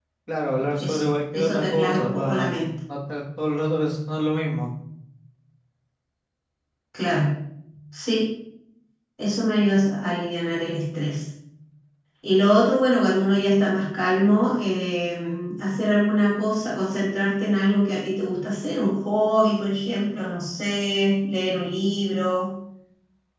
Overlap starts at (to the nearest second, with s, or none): 1 s